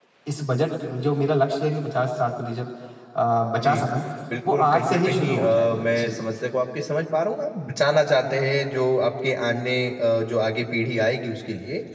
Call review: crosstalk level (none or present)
present